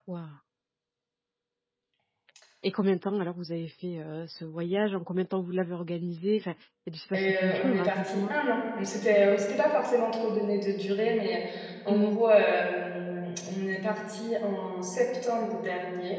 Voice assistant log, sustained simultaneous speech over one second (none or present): present